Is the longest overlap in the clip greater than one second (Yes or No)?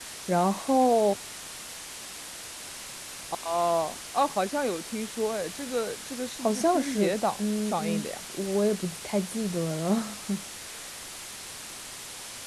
Yes